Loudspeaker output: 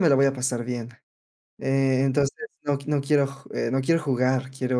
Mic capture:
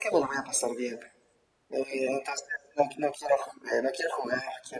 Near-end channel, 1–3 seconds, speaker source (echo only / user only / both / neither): echo only